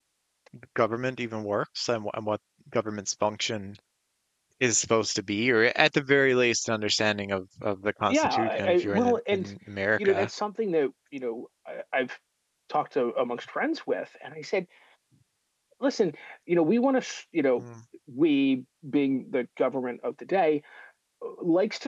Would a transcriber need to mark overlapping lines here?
Yes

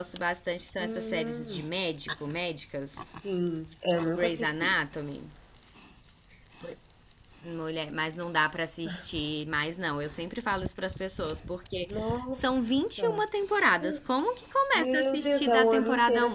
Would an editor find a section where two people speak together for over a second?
Yes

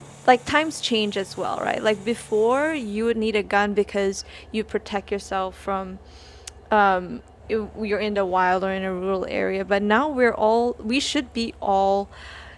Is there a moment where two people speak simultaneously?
No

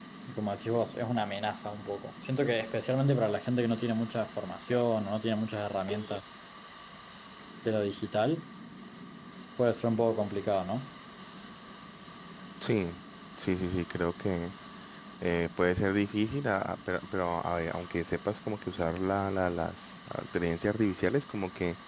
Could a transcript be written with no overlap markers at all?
Yes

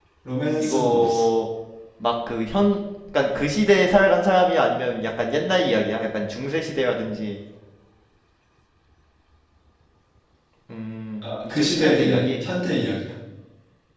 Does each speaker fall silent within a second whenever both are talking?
No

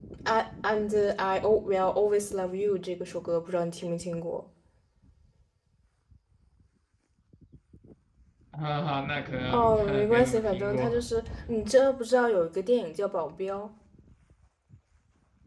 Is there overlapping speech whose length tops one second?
Yes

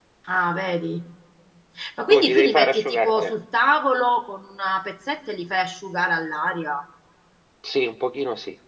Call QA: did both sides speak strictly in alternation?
No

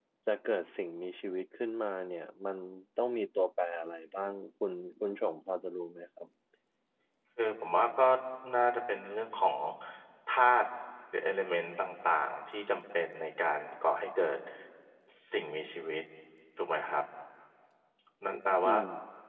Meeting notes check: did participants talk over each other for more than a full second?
No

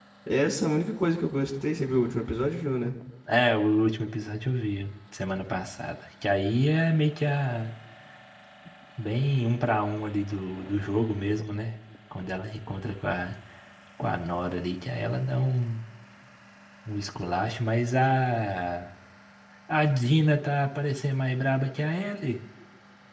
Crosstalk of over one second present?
No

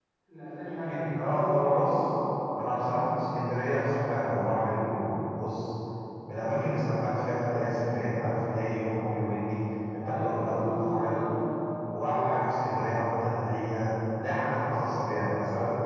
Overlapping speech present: Yes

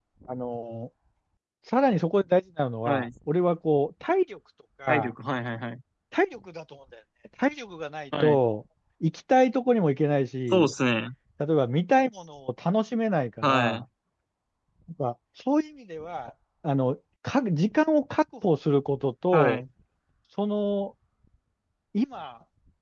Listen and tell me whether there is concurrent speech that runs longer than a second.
No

